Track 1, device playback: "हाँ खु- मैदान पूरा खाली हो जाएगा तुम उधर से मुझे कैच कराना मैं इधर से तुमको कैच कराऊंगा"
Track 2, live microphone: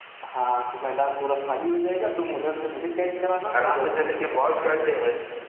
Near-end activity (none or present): present